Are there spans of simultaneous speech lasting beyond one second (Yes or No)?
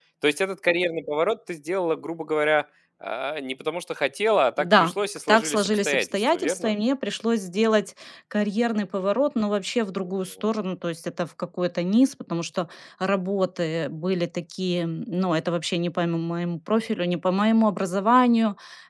Yes